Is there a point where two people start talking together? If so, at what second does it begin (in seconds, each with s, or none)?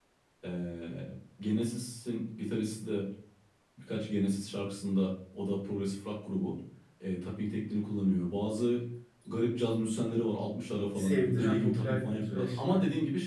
10.9 s